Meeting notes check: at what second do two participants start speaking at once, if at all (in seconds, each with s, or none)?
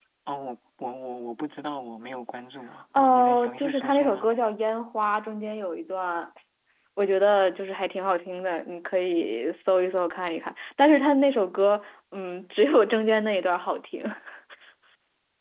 2.9 s